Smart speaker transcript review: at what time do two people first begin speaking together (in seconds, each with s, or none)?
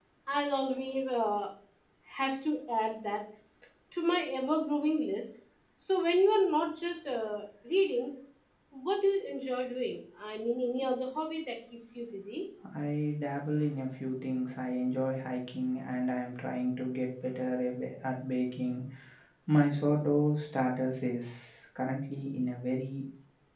none